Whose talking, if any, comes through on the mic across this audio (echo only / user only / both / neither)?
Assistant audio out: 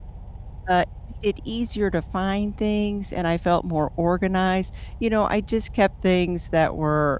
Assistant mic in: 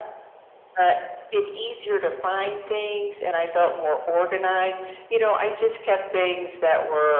echo only